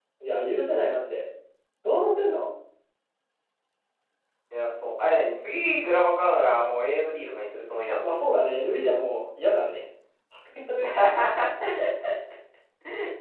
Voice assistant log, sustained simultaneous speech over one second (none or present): none